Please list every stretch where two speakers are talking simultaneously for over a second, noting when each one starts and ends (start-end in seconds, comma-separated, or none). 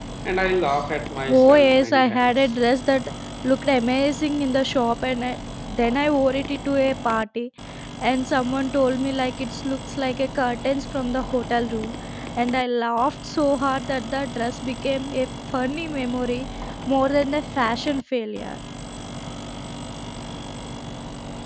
1.3-2.5